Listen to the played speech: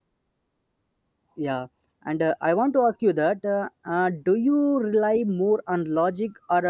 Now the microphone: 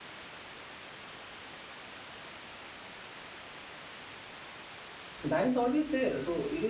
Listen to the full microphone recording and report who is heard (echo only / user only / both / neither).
user only